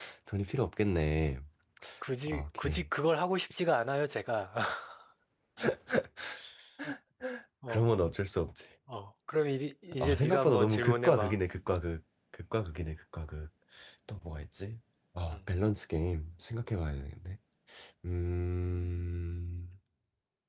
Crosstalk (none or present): present